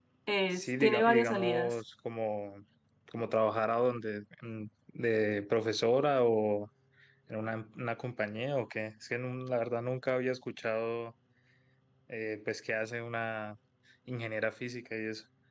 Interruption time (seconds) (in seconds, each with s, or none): 0.5 s